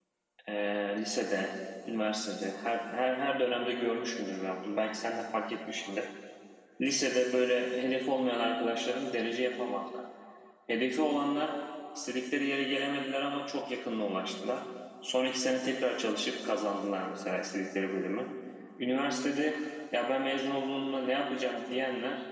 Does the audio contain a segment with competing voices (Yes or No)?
No